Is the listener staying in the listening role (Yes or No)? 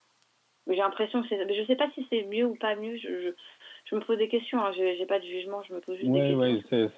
No